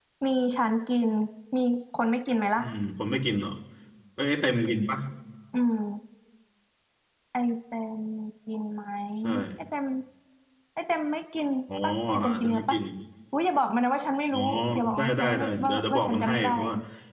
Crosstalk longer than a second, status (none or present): present